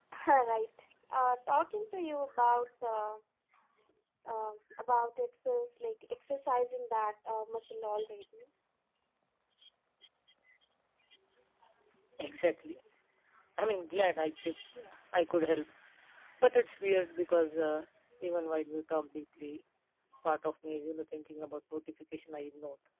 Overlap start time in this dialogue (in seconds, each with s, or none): none